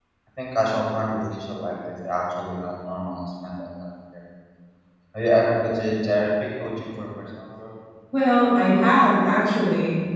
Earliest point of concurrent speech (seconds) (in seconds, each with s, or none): none